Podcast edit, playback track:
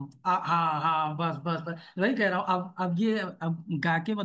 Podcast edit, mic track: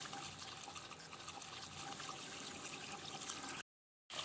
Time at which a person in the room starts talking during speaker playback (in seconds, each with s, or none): none